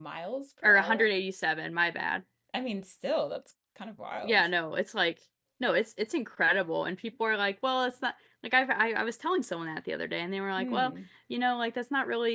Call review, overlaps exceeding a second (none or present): none